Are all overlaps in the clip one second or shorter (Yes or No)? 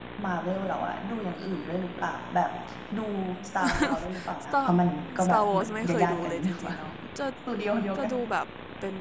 No